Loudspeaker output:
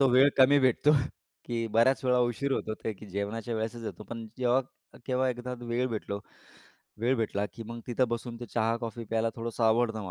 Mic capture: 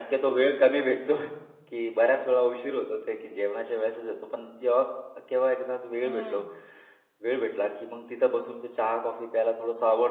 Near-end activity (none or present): present